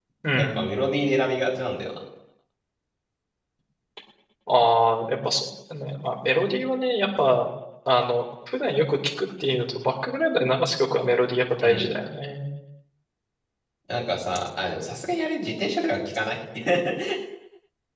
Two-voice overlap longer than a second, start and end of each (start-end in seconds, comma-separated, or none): none